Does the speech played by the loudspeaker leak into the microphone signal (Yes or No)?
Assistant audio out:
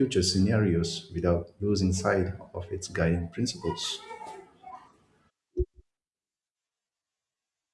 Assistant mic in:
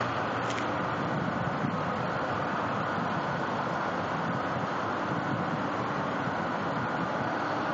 No